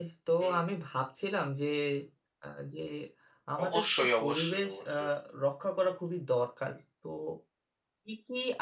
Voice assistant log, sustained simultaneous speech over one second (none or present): present